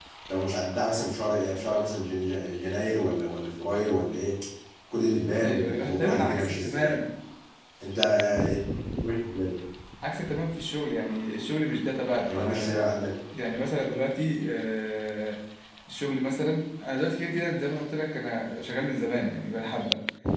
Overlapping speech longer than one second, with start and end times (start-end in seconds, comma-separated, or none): 5.4-7.0